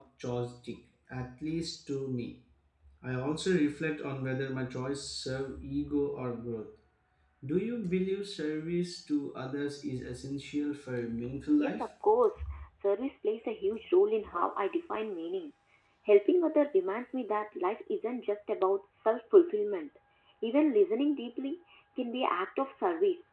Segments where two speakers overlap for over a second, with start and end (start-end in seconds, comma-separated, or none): none